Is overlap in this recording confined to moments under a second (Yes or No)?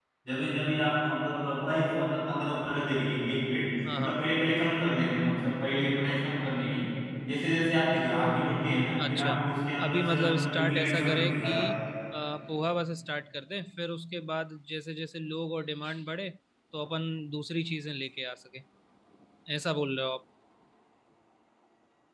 No